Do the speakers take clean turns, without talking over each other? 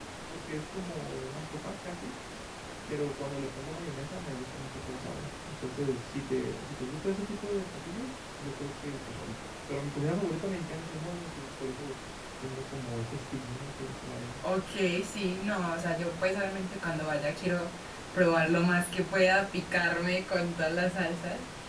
Yes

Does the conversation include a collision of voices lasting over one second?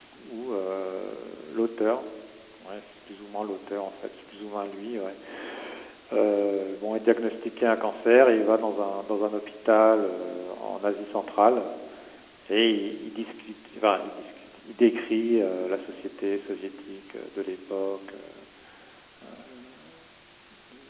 No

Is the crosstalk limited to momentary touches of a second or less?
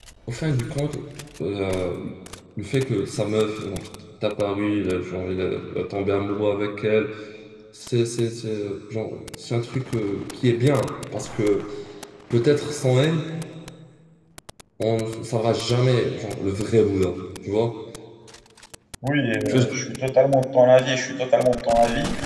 Yes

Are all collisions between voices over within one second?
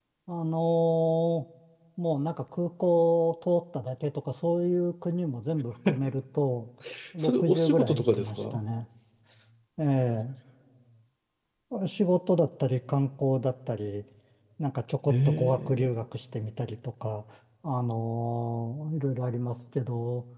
No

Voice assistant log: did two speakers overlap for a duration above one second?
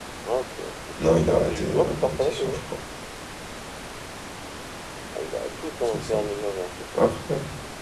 Yes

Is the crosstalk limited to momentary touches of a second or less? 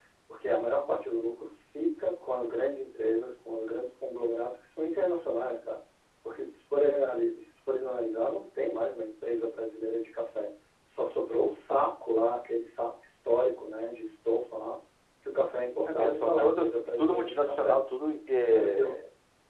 No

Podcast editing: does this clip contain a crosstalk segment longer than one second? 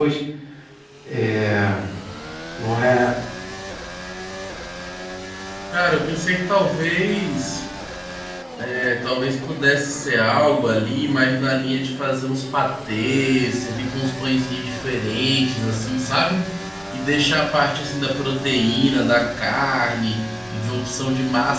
No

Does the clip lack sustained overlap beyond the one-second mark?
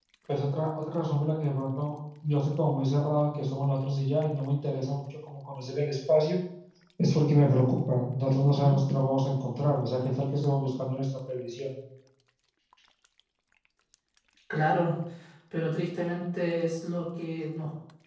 Yes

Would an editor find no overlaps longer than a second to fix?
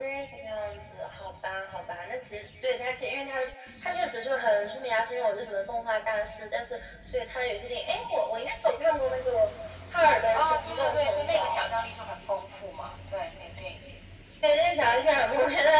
No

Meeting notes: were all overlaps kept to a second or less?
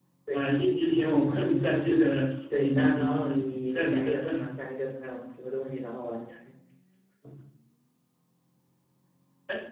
No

